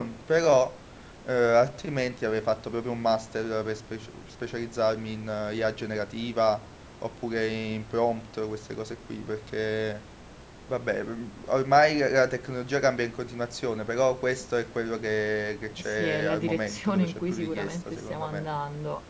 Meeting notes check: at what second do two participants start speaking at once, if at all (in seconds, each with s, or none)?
15.8 s